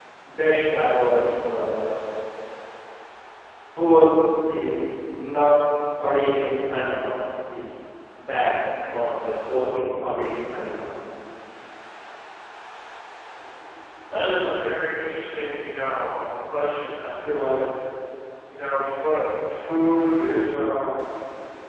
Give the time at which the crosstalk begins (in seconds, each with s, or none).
none